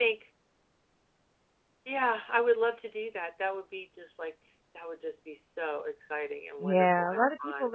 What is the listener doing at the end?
taking over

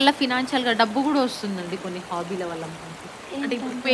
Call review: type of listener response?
listening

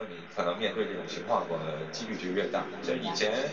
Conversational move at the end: listening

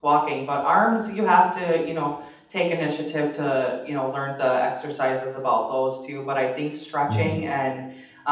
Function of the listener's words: listening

